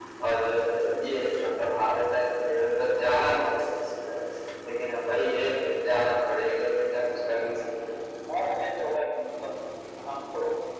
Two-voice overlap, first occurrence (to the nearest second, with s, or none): none